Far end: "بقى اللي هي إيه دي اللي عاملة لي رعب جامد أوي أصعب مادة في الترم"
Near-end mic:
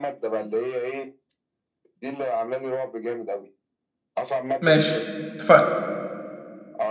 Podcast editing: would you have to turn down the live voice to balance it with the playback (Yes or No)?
Yes